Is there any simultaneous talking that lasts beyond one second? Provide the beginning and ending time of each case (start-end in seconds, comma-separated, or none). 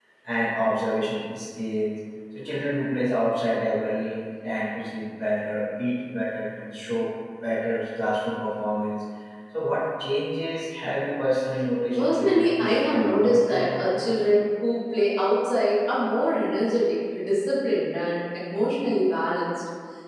11.9-14.1